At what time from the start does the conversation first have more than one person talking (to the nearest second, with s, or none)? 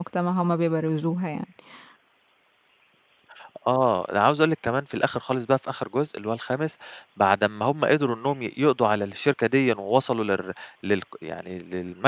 none